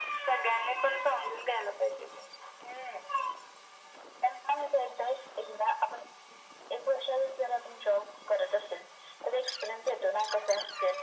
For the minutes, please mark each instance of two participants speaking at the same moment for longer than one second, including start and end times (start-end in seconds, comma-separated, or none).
none